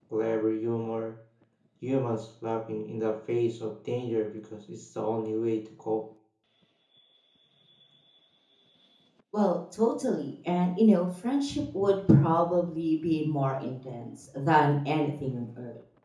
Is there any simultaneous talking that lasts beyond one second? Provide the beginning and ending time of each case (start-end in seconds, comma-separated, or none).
none